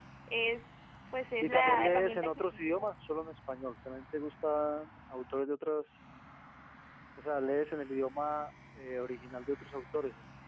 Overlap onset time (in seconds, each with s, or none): 1.4 s